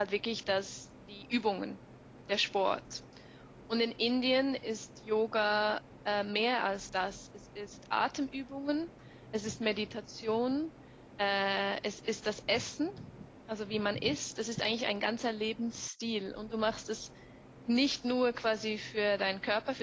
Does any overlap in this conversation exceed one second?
No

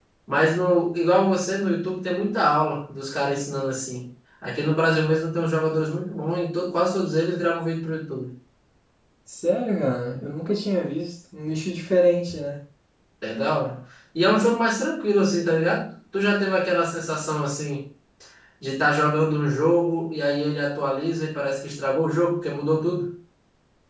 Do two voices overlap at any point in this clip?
No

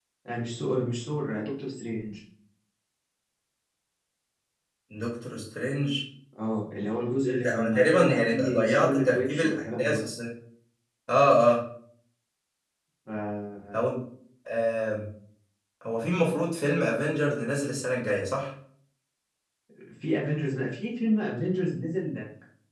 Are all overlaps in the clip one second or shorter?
No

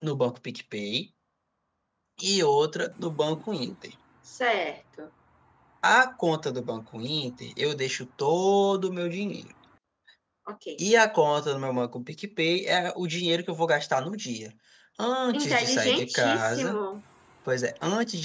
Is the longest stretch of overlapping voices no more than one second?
No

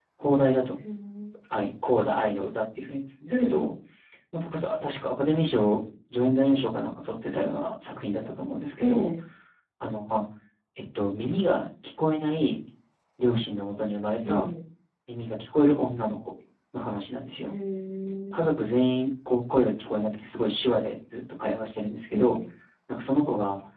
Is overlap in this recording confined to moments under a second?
Yes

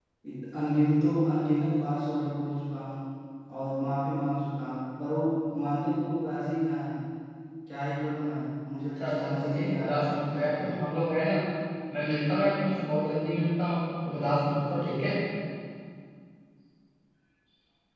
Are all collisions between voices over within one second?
No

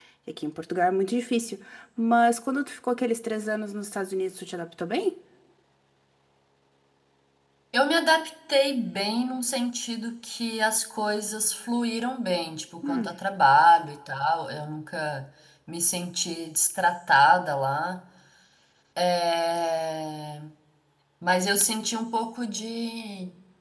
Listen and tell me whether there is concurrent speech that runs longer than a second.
No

